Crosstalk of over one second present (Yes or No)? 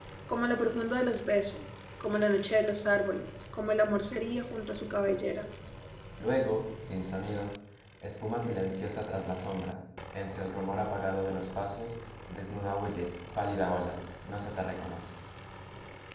No